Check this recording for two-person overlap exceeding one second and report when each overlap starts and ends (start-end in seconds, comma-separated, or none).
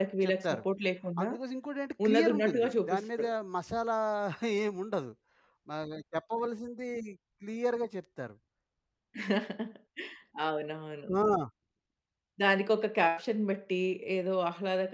2.0-3.3